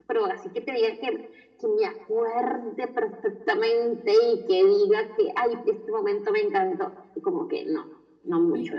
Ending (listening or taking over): taking over